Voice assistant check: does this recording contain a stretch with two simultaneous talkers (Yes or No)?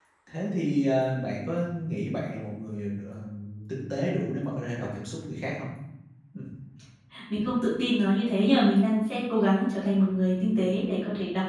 No